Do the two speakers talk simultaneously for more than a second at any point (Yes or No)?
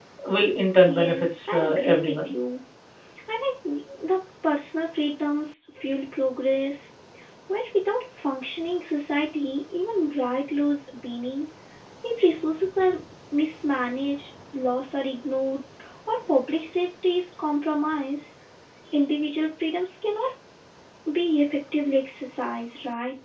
Yes